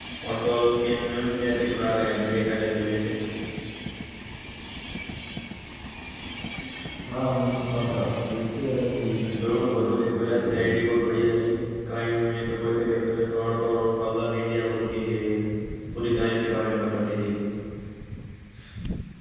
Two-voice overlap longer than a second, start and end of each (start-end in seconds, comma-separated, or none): 9.4-10.8